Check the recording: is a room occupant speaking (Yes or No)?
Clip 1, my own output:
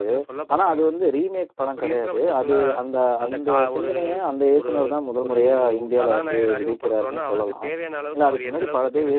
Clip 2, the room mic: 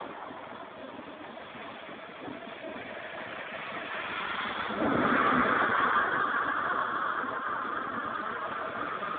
No